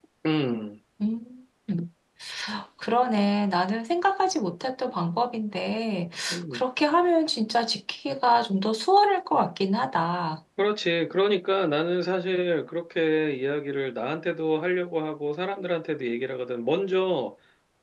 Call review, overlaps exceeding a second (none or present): none